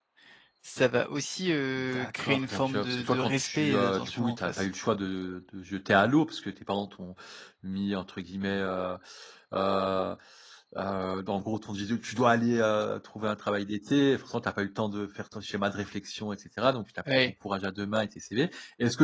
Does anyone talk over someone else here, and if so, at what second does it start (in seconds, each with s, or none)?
1.9 s